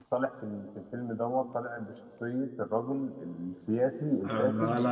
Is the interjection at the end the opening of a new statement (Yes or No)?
Yes